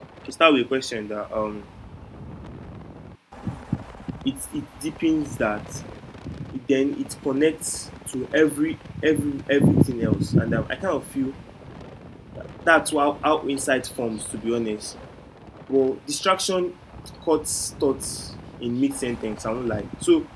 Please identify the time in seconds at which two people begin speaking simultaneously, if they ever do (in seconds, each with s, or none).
none